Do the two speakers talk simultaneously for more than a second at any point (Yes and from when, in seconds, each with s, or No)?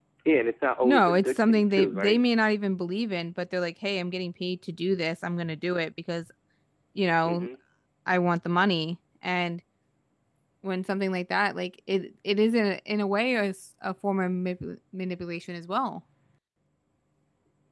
Yes, from 0.8 s